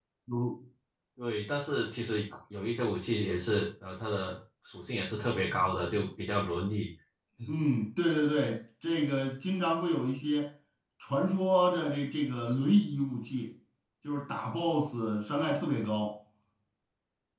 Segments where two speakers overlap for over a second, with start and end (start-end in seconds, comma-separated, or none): none